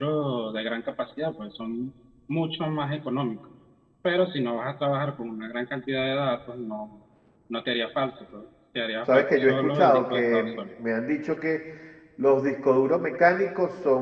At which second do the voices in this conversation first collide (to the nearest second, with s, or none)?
9 s